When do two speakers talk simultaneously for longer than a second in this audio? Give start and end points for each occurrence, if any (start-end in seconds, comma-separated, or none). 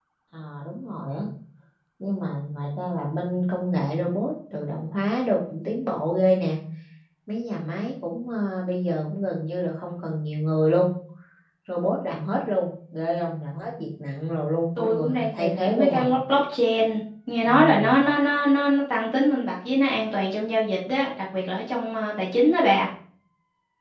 14.8-16.1